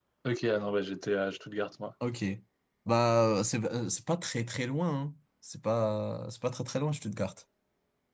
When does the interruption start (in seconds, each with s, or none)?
none